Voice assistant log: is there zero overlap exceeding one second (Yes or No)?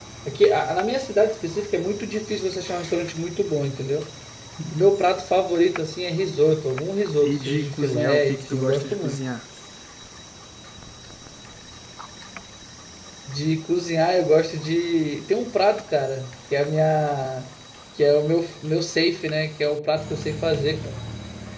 No